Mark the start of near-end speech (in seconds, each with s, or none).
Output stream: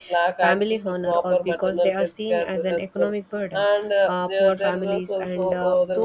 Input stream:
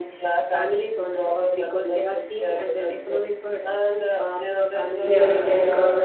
5.0 s